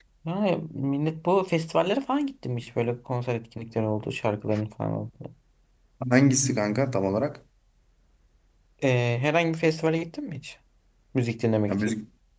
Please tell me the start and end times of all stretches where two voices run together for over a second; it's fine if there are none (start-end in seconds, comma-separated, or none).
none